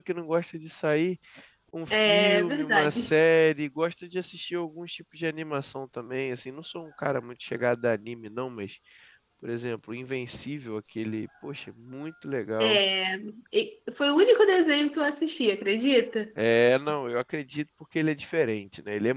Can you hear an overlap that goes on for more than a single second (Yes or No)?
Yes